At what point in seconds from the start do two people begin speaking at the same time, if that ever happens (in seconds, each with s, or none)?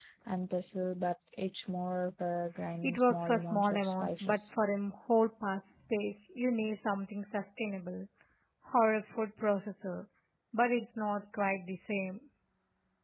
2.8 s